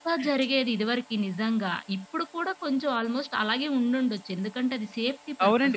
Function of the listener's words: taking over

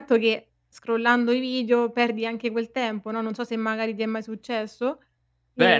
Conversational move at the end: taking over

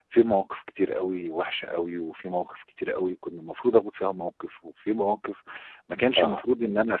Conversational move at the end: listening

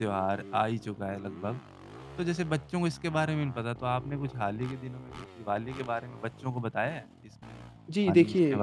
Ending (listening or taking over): taking over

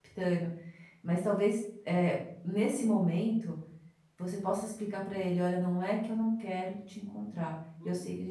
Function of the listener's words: listening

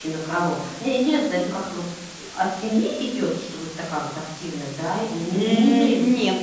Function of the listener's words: taking over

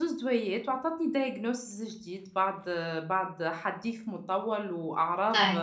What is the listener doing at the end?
listening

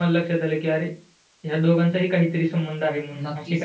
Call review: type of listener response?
taking over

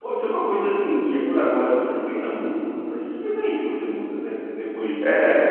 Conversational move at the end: taking over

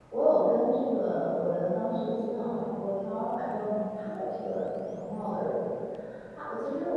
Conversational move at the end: listening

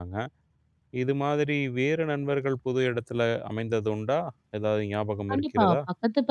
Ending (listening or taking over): taking over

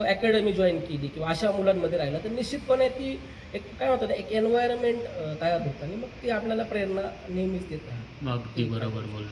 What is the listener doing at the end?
taking over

